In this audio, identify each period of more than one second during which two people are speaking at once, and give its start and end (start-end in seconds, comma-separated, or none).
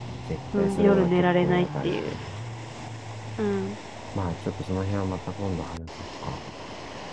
0.6-2.1